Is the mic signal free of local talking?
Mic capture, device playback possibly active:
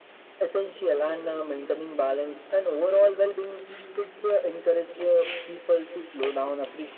Yes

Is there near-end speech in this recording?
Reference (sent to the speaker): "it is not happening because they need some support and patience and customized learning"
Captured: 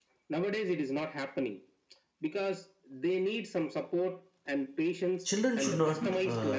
Yes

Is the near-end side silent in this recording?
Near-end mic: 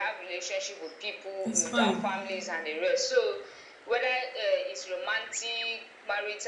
No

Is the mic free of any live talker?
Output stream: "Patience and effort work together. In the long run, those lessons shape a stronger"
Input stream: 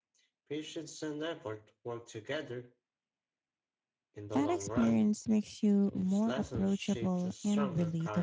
No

